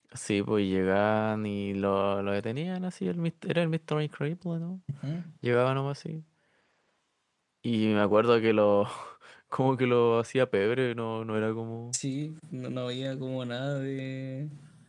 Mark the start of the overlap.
none

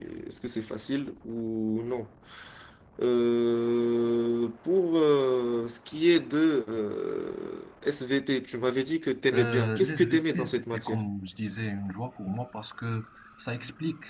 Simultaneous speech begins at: 9.3 s

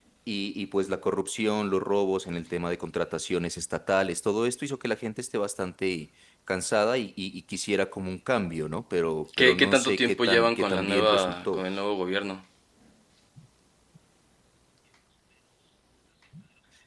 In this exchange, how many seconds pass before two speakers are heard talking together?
9.3 s

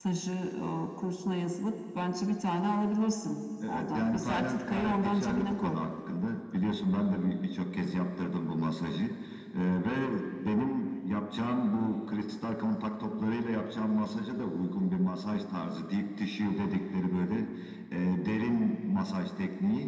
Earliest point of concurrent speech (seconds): 3.6 s

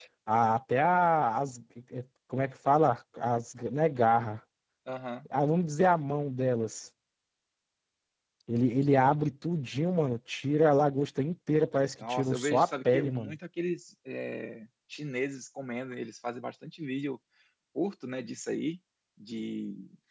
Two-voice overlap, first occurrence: 12.0 s

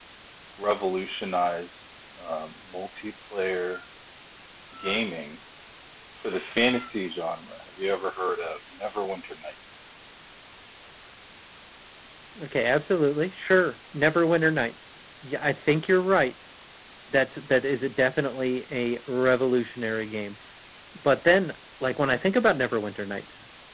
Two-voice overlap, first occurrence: none

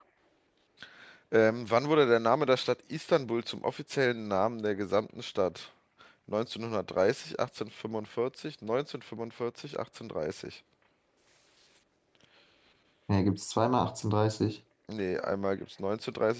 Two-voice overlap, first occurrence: none

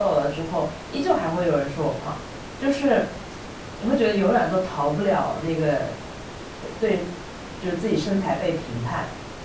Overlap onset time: none

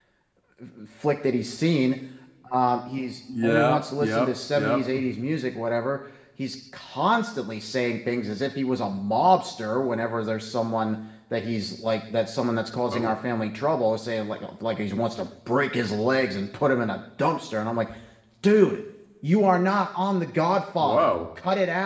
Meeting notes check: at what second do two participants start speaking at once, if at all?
3.4 s

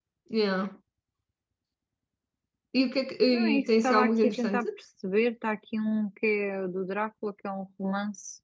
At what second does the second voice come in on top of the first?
3.3 s

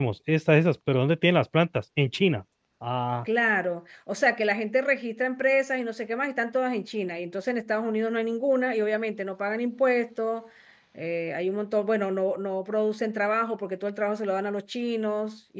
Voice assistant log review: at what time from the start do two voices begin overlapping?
none

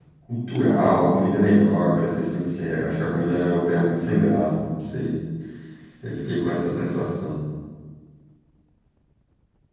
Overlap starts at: none

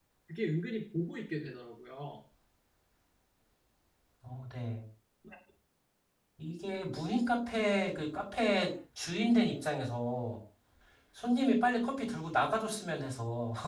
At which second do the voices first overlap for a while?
none

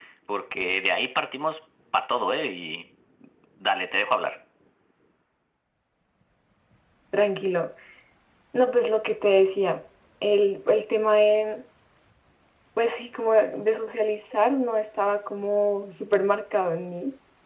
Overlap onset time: none

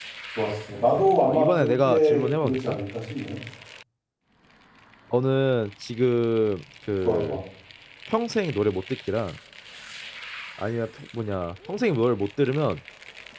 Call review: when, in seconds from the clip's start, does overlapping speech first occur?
0.7 s

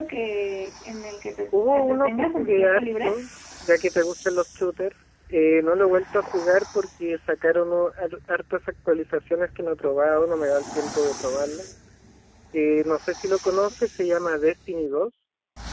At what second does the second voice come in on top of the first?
1.5 s

